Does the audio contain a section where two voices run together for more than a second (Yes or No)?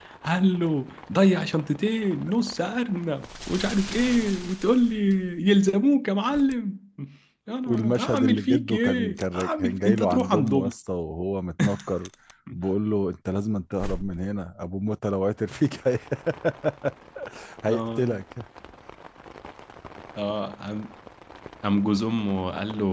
Yes